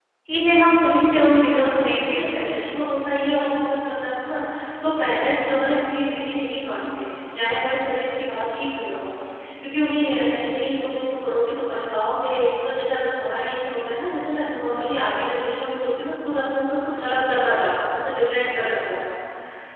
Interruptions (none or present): present